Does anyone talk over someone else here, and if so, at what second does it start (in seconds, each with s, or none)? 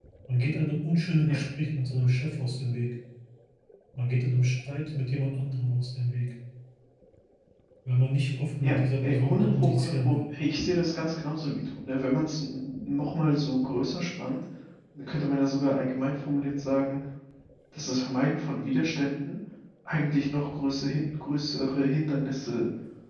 8.6 s